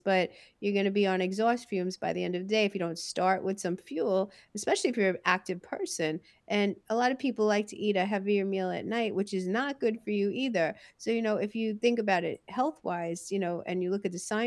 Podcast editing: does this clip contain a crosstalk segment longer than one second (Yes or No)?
No